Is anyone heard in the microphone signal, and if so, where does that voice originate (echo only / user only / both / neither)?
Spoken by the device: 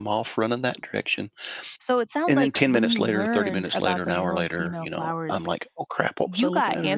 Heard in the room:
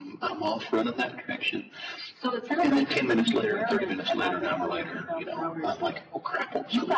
echo only